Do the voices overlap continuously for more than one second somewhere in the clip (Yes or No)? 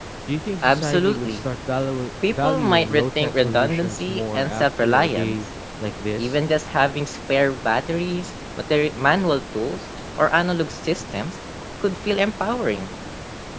Yes